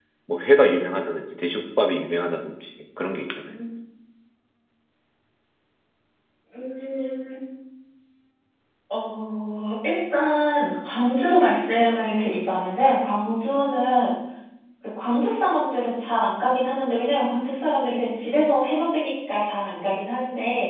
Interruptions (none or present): none